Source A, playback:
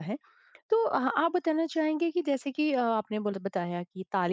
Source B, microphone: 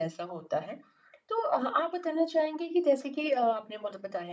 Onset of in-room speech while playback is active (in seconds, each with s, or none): none